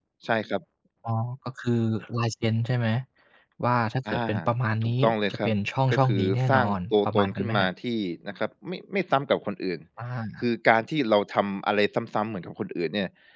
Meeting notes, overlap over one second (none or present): present